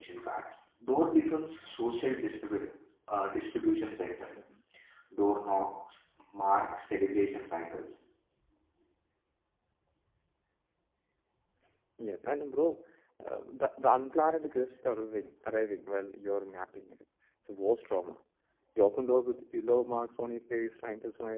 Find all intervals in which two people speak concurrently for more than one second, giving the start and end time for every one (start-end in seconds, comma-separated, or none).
none